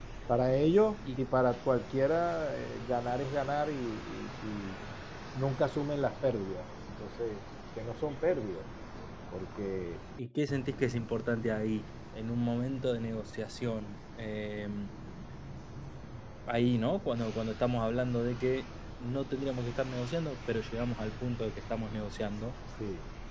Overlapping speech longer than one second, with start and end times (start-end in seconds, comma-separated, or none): none